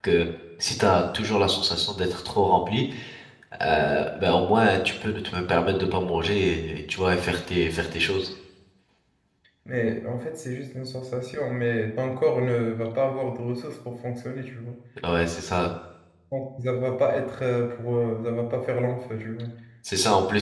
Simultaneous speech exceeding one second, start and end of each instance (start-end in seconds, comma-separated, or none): none